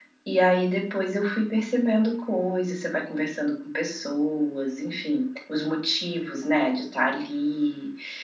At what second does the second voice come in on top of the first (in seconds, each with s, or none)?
none